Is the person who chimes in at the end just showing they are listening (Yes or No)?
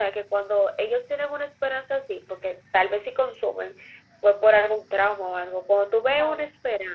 Yes